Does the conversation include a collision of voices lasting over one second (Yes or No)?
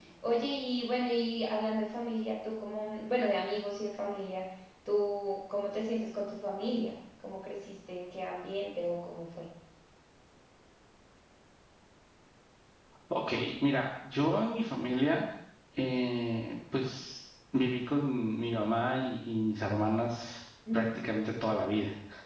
No